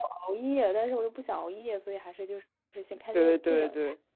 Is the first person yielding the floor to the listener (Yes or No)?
Yes